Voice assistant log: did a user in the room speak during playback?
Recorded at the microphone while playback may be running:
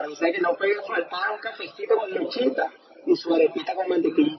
No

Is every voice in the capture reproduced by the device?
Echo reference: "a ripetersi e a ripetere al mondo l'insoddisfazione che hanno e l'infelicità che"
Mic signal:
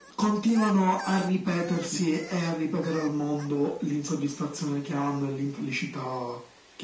Yes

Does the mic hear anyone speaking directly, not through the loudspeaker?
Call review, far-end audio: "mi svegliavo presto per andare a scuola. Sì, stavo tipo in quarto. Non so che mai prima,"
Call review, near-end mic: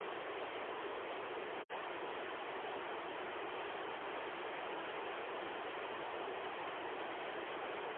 No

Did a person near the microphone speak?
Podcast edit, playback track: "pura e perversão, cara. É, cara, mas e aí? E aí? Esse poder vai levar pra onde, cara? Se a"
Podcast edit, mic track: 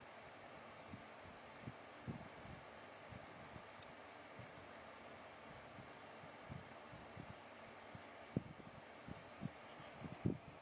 No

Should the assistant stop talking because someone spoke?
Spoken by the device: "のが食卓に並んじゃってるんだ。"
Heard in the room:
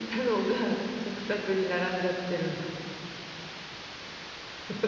No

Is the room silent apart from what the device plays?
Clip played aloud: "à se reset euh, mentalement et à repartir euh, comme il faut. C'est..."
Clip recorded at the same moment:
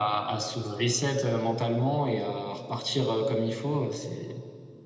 Yes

